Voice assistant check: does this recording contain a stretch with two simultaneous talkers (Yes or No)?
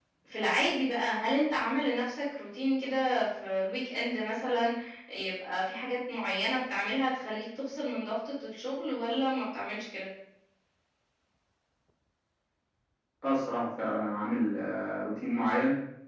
No